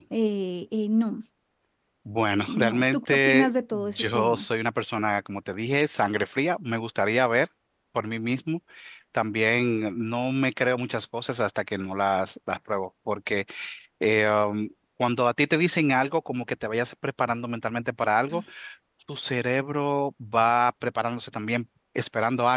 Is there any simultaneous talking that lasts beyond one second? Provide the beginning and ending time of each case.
2.5-4.5

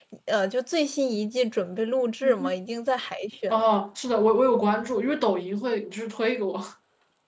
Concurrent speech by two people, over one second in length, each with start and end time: none

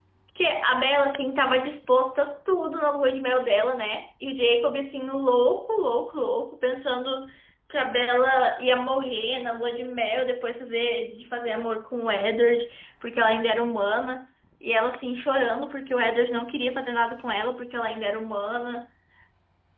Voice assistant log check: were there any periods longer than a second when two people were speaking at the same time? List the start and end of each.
none

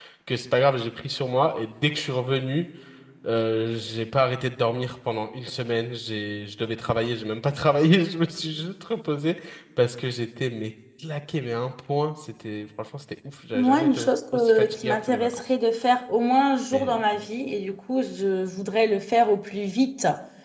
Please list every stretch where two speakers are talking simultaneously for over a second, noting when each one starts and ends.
13.5-15.4

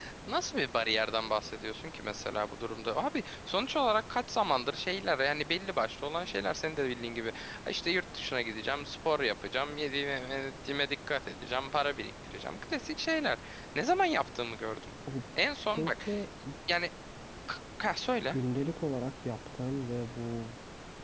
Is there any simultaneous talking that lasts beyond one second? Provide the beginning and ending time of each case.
none

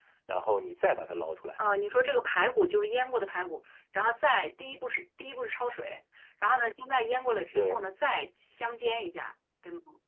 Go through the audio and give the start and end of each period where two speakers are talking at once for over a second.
none

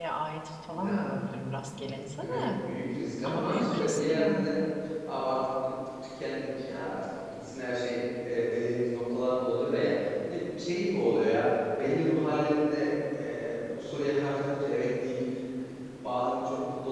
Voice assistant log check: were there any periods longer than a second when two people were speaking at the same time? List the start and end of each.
3.2-4.6

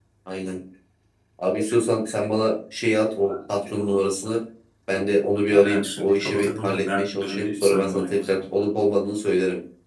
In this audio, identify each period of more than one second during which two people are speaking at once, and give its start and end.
5.5-8.4

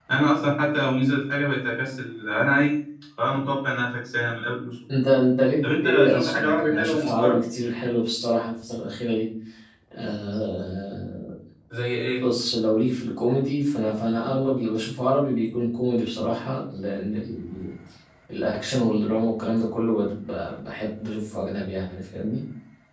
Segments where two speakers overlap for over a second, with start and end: 5.6-7.4

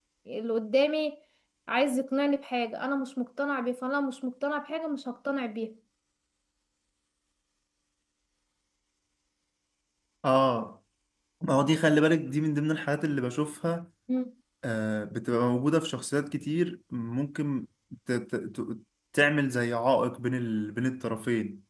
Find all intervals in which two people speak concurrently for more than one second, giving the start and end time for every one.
none

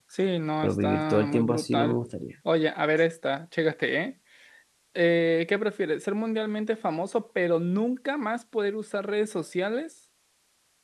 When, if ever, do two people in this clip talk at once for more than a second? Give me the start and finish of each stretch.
0.6-2.0

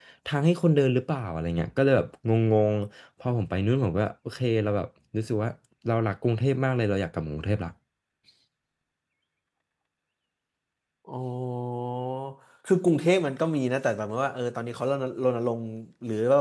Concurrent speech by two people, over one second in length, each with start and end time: none

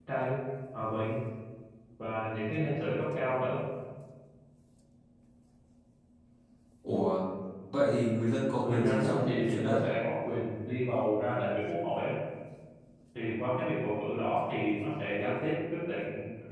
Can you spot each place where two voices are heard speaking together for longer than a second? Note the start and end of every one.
8.6-9.8

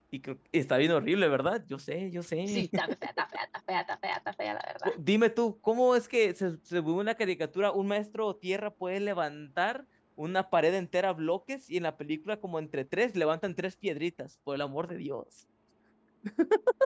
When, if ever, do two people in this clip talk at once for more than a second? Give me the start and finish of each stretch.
none

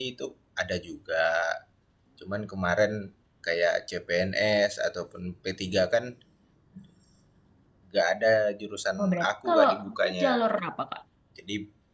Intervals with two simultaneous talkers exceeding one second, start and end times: 9.0-10.4

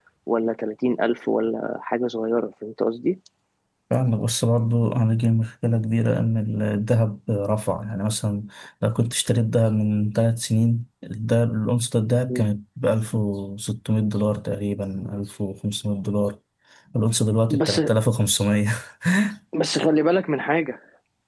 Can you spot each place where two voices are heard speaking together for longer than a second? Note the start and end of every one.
none

